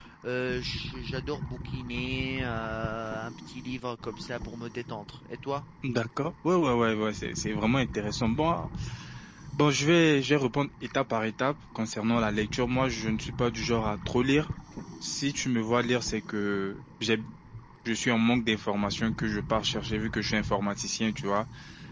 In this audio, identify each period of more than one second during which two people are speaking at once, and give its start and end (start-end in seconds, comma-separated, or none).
none